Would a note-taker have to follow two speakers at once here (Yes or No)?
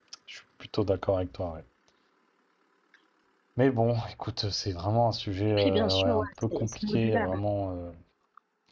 Yes